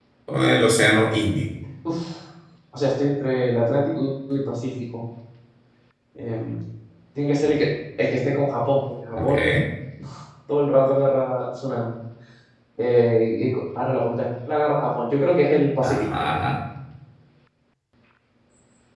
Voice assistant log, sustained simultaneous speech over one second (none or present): none